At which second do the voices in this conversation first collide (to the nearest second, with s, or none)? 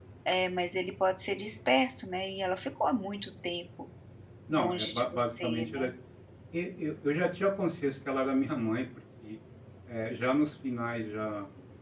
4 s